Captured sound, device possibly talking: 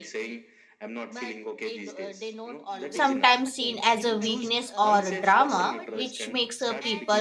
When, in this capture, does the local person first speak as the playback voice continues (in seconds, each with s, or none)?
2.9 s